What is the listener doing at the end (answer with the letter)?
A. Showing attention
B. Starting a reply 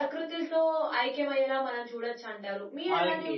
A